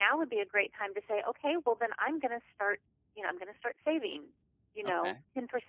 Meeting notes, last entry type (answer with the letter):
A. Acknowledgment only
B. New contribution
A